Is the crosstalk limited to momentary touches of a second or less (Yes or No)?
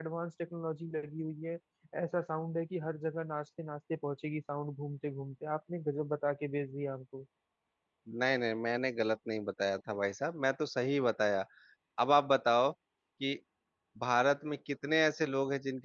Yes